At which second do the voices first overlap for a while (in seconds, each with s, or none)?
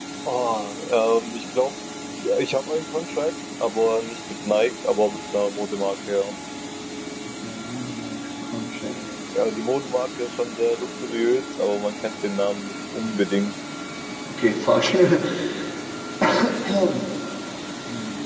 none